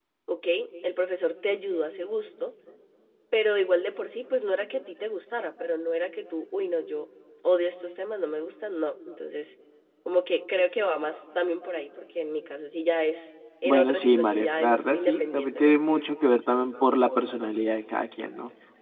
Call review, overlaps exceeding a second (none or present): present